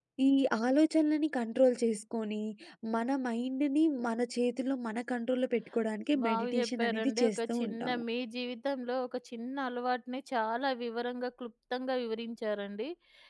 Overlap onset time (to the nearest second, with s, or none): 6 s